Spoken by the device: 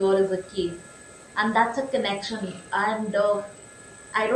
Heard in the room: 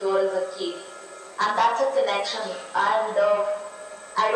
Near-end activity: none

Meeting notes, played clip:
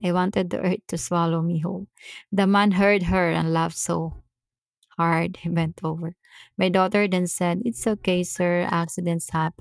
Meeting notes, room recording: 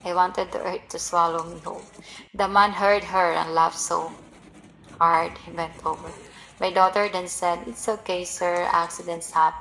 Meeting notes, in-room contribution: none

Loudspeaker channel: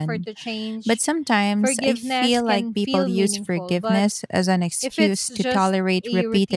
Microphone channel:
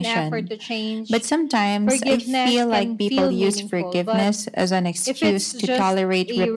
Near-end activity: none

